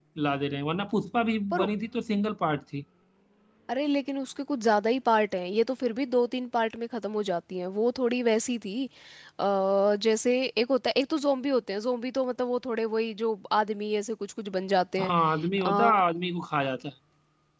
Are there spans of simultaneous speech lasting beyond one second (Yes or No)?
No